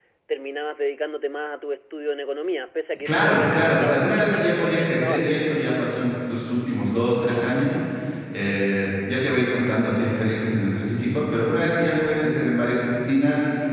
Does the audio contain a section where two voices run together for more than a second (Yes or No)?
Yes